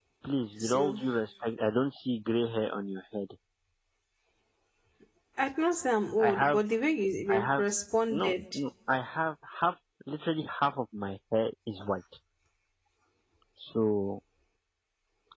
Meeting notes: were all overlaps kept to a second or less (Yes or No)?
Yes